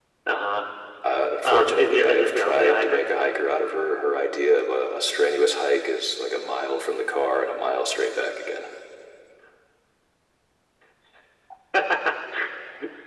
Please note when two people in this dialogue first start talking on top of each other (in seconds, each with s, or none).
1.4 s